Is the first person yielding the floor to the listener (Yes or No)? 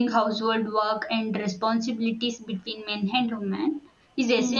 No